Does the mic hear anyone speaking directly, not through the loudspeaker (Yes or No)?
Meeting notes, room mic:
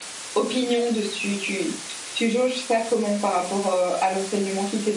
Yes